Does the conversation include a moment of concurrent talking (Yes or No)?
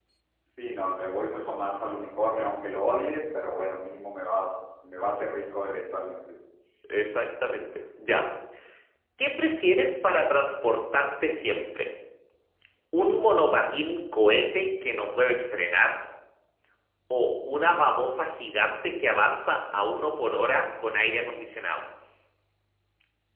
No